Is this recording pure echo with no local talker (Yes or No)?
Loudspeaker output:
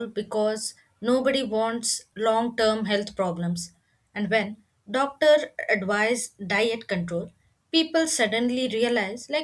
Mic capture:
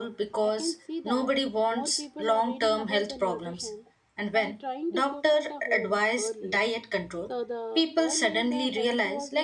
No